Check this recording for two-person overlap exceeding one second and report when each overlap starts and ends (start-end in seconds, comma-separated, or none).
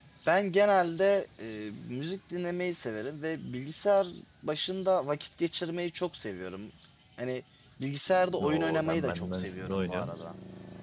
8.5-10.2